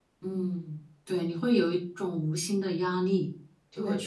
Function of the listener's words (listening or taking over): taking over